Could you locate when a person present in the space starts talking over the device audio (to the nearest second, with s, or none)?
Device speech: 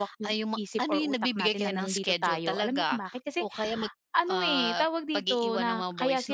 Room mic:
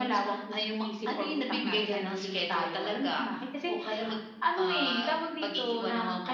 none